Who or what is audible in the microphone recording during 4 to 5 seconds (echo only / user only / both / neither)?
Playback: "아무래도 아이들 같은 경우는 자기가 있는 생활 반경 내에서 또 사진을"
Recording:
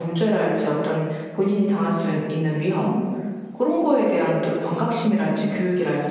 user only